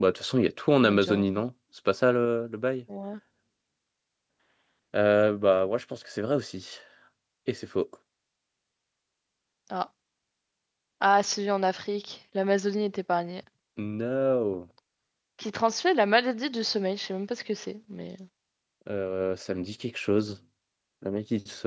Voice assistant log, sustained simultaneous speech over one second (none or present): none